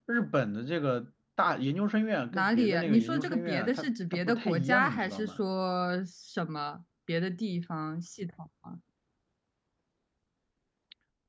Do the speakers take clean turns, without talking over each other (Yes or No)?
No